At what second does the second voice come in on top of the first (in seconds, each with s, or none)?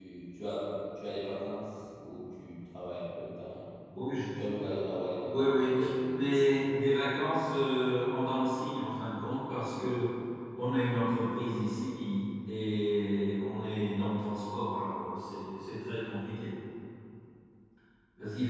5.2 s